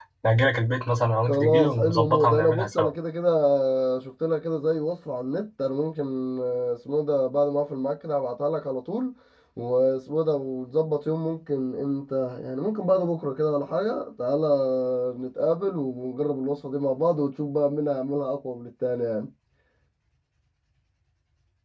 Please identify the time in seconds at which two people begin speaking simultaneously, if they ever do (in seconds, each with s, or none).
1.3 s